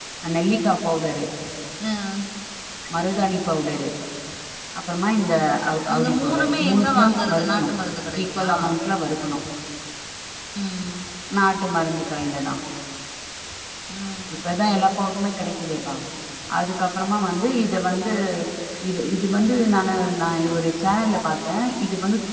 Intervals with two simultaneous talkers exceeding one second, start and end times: 5.9-7.7

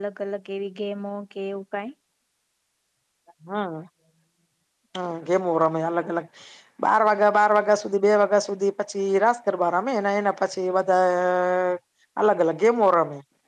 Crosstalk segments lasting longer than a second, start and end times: none

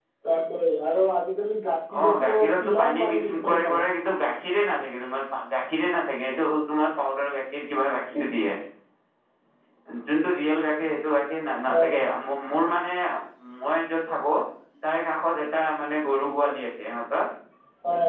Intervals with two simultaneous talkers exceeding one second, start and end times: 2.2-3.9

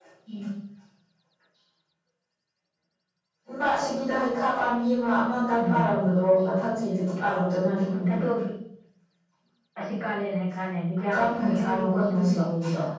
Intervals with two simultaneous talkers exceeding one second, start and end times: 11.1-12.4

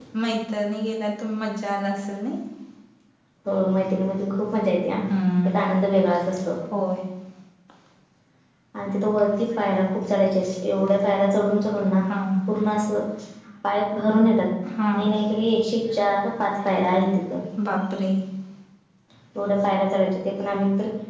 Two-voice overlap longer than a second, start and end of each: none

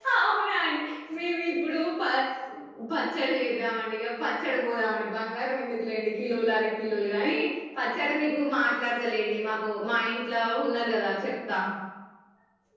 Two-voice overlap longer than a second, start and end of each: none

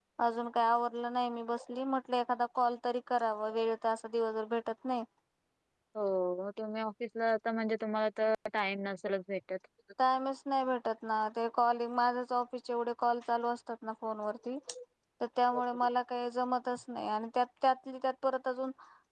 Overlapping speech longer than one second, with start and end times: none

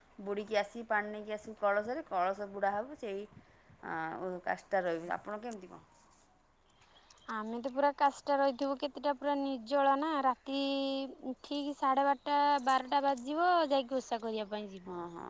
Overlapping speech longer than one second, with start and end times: none

